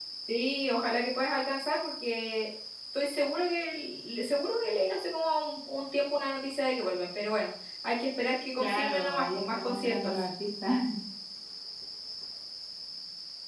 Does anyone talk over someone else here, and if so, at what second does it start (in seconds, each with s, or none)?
8.6 s